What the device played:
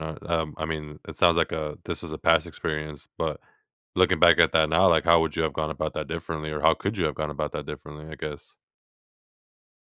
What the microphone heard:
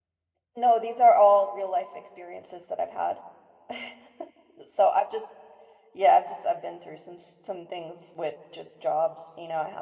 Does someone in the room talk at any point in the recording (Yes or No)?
Yes